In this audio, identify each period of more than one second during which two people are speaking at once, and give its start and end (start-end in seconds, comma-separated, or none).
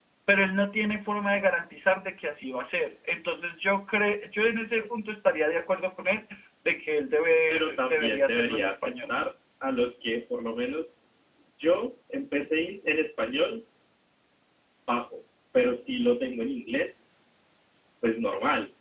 7.5-8.9